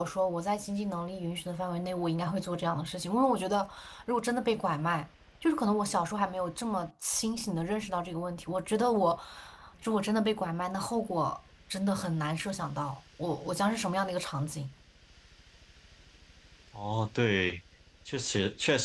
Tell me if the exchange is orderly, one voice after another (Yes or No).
Yes